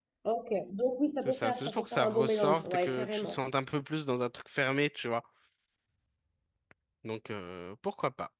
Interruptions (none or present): present